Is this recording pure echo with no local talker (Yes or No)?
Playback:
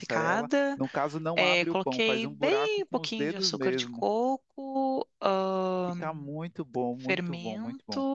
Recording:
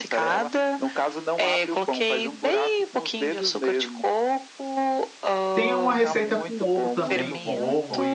No